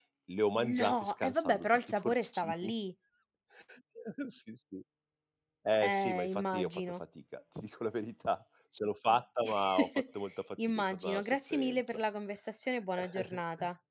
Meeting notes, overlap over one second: present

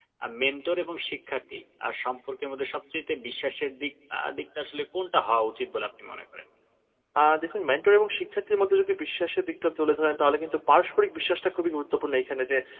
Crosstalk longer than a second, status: none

